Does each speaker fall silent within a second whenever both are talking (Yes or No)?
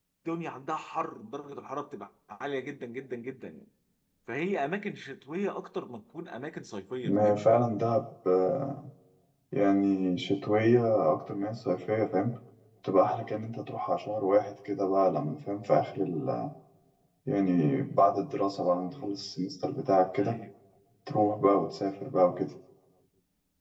Yes